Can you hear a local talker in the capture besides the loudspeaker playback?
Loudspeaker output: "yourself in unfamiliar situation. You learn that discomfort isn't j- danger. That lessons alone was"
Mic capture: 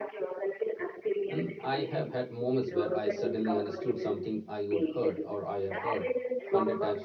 Yes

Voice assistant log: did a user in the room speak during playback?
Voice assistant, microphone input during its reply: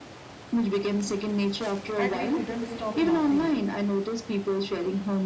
Yes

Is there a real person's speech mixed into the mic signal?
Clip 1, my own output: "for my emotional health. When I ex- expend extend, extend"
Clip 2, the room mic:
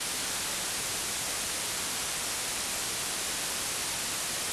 No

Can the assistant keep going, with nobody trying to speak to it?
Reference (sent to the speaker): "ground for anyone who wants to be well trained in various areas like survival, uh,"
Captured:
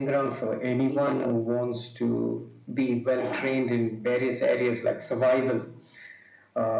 Yes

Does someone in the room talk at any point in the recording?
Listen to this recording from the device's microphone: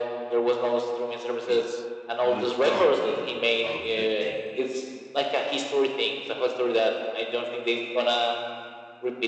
Yes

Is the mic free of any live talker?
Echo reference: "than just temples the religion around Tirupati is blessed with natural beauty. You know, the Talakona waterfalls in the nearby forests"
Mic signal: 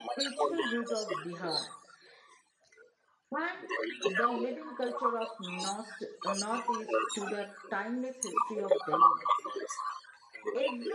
No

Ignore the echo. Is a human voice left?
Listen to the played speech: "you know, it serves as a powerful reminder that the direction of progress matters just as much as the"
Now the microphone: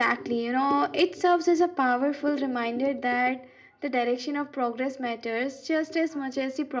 No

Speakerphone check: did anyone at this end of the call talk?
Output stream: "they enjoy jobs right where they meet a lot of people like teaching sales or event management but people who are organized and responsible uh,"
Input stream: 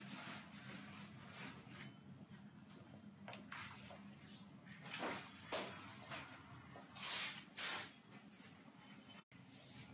No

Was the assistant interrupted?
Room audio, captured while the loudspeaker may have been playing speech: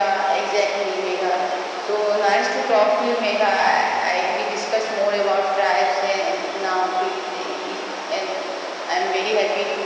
No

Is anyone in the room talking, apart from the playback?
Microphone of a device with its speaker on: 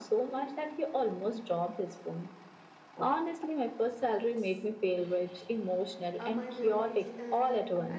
Yes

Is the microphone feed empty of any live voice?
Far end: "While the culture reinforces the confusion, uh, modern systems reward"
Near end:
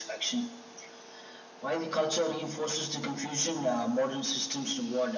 Yes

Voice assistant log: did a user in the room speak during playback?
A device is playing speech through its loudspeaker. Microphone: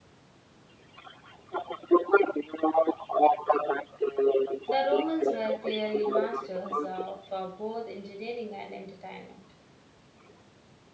Yes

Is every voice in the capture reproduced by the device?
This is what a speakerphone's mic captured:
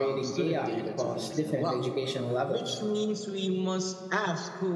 Yes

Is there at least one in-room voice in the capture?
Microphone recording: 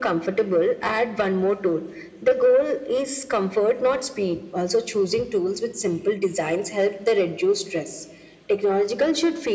No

